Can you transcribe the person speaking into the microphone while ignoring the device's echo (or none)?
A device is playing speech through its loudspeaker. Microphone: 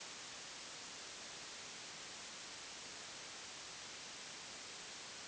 none